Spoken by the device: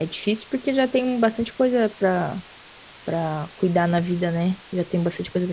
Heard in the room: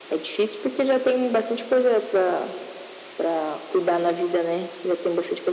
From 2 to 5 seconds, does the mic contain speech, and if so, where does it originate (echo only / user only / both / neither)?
echo only